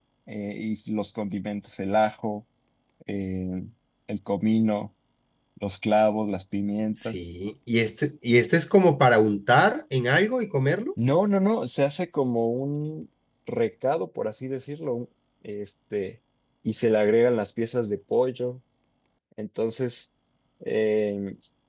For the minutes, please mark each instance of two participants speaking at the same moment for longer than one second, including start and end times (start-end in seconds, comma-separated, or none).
none